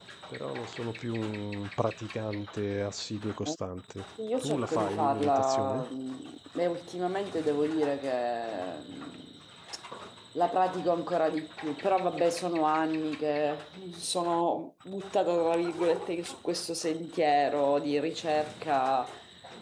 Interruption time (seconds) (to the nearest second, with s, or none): 4 s